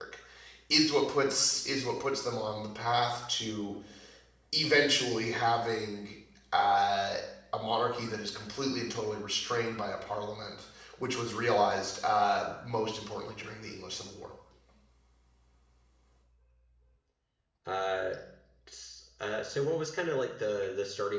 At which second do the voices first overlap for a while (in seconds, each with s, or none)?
none